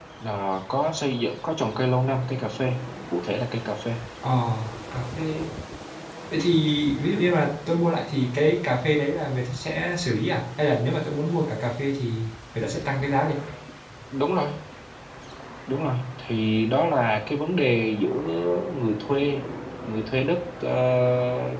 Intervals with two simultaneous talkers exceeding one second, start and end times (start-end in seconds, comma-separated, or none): none